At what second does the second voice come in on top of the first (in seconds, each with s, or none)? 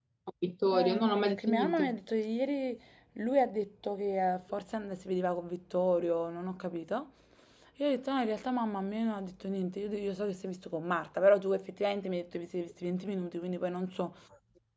0.7 s